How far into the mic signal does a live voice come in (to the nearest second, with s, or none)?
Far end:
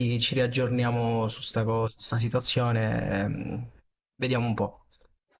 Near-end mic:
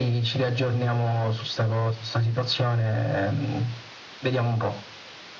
none